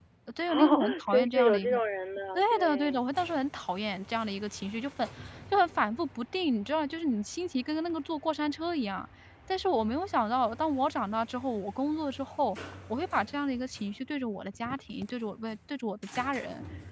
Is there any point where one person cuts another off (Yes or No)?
Yes